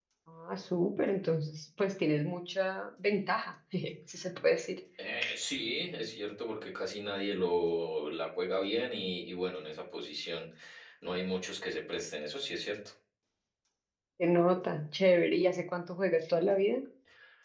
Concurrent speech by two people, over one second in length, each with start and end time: none

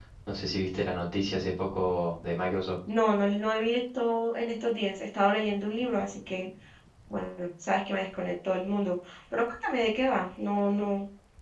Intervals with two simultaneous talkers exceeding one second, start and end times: none

